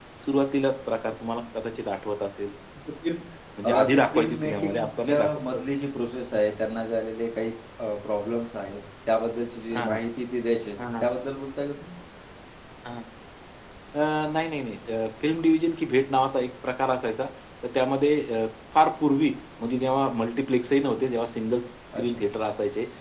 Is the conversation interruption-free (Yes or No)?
No